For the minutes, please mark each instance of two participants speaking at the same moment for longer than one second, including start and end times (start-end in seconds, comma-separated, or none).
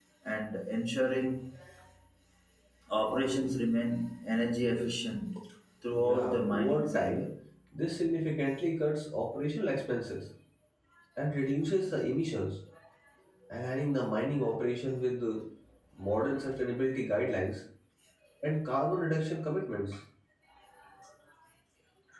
6.0-7.2